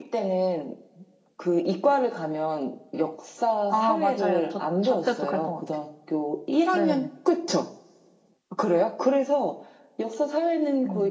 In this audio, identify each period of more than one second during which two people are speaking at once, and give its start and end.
3.7-5.6

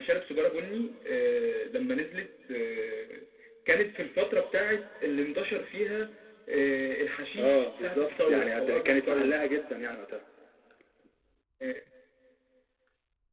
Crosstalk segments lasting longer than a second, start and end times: 7.4-9.4

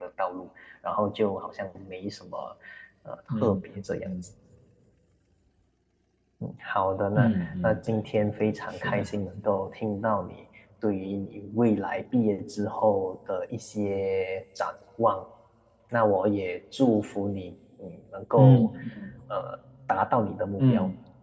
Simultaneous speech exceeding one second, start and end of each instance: 7.2-9.1

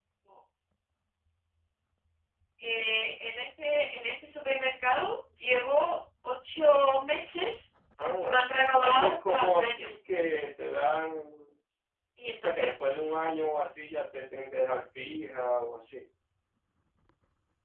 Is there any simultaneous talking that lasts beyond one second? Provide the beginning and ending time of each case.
8.2-9.9

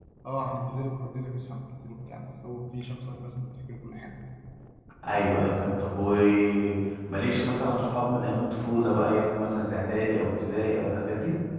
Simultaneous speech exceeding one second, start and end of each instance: none

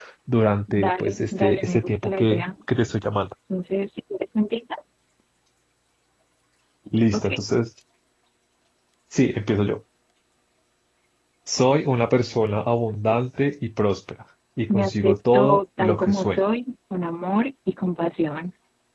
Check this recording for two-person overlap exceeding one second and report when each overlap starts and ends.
0.7-2.4, 14.7-16.4

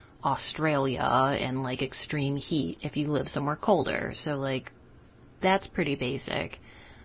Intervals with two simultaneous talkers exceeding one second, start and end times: none

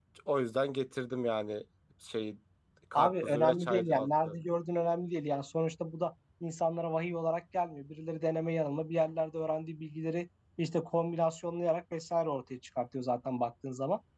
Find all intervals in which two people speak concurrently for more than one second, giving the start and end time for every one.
2.9-4.4

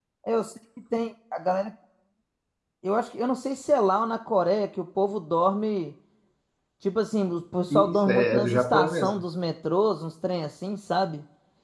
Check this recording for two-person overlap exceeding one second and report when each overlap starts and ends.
7.7-9.1

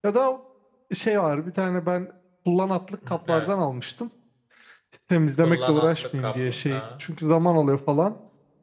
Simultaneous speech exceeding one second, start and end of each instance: 5.4-6.8

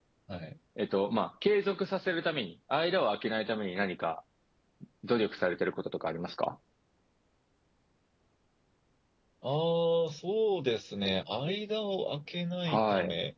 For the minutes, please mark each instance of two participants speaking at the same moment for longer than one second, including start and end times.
none

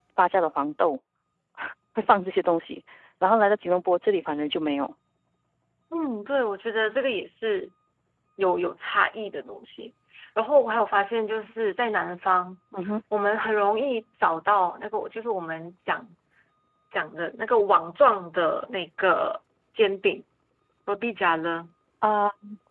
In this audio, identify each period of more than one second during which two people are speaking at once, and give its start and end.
none

